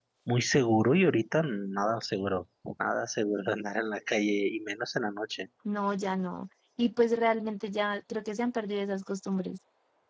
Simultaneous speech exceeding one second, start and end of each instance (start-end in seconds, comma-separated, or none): none